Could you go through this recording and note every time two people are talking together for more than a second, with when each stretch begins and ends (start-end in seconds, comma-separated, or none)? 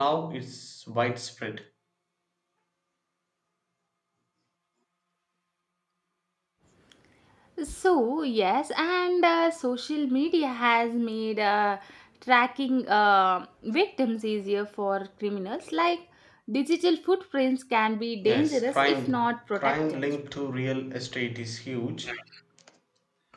18.2-20.0